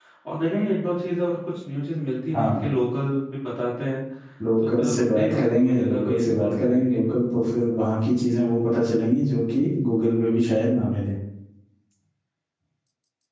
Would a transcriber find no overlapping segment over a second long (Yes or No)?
No